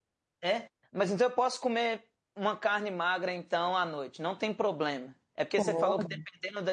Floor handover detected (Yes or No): No